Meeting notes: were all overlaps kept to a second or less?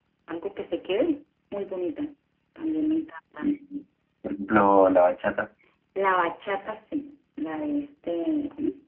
Yes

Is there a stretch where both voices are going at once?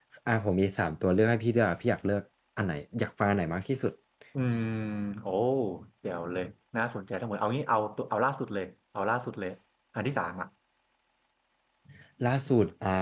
No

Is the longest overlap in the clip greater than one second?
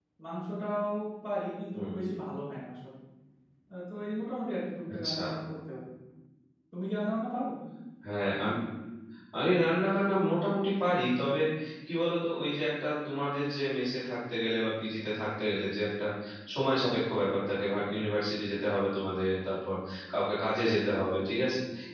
No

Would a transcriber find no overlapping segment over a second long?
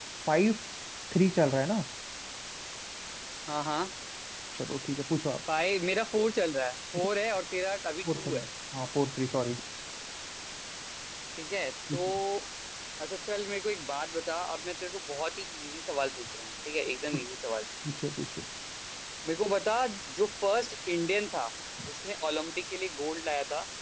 Yes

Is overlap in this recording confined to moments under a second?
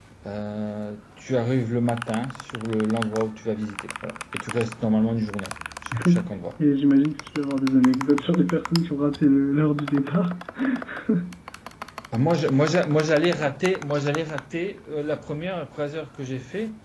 Yes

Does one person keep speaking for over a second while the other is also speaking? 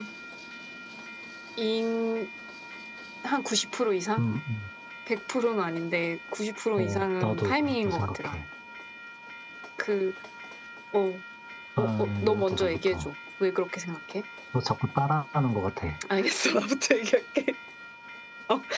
Yes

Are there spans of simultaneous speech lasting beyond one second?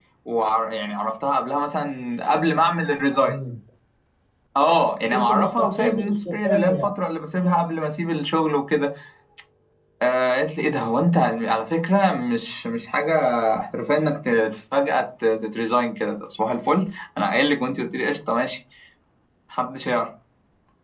Yes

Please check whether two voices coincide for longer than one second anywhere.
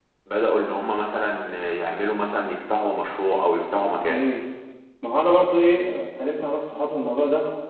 No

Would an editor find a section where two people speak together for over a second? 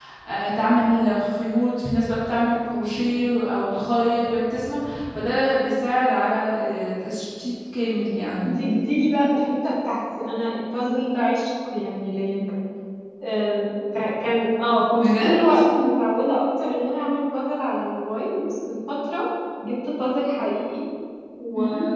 No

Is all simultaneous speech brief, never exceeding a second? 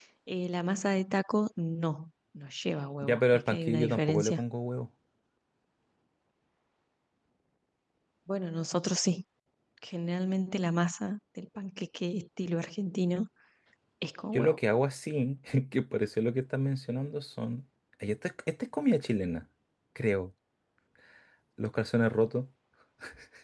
No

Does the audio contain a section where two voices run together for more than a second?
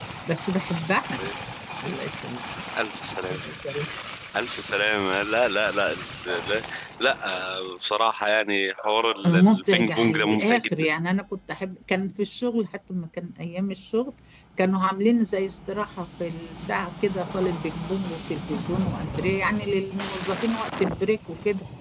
Yes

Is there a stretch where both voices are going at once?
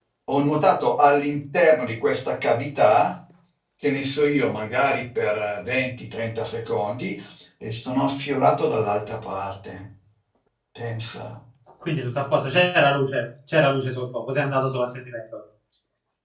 No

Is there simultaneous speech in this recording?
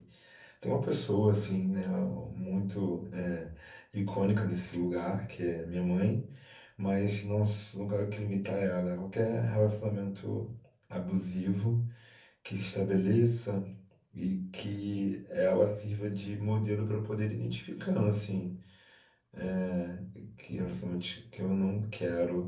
No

